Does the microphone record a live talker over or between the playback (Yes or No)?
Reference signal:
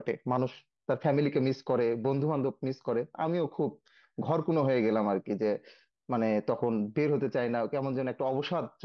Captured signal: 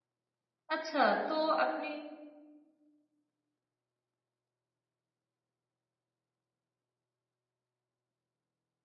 Yes